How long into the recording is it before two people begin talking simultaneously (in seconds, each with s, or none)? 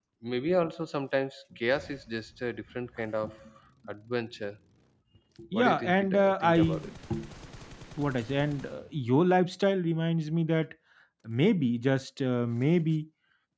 5.5 s